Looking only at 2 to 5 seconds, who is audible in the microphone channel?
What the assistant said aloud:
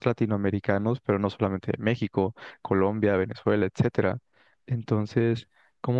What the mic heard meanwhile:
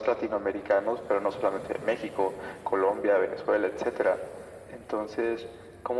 echo only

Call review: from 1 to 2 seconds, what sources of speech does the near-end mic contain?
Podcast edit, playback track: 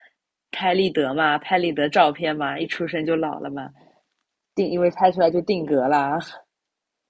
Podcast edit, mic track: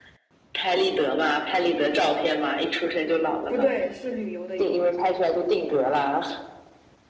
echo only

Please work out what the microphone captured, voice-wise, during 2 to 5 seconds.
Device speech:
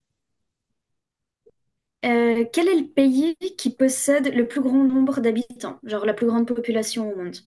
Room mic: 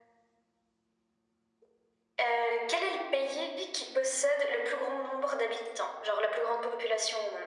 echo only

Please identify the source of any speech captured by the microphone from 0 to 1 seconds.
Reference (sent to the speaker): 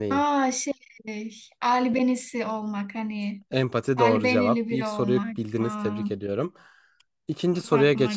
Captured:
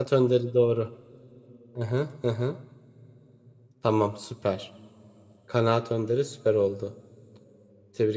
user only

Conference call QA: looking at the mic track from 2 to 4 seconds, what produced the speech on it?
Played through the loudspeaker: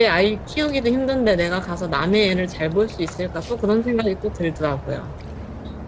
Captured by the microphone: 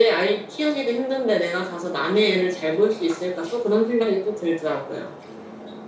echo only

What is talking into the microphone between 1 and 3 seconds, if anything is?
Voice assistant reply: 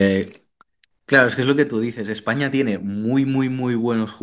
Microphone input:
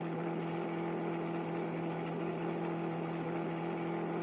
neither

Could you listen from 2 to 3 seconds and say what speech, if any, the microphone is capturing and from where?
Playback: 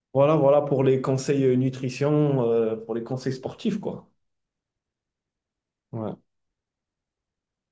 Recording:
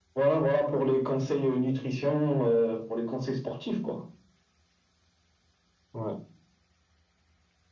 echo only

